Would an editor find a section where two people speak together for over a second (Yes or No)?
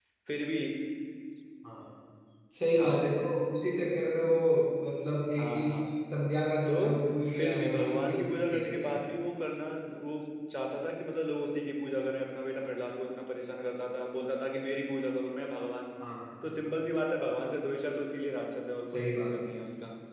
Yes